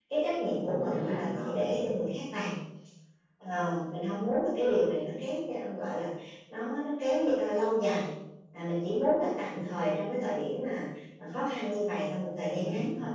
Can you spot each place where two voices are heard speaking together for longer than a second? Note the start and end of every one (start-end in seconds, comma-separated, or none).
0.7-1.9